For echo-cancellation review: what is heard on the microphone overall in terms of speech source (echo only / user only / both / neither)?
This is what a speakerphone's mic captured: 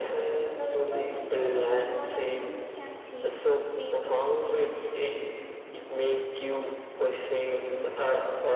echo only